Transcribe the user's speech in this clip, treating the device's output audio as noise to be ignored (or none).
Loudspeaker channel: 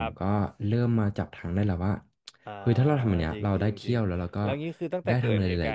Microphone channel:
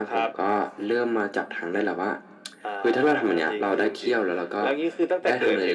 none